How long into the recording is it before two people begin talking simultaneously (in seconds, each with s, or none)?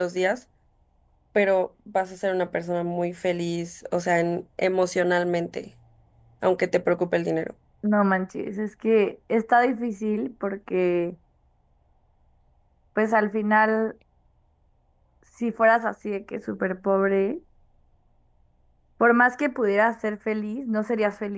none